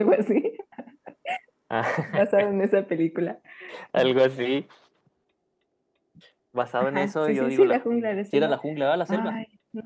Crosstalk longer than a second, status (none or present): present